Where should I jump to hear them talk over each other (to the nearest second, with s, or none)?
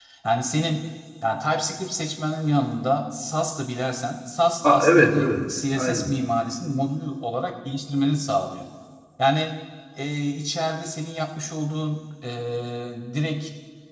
5 s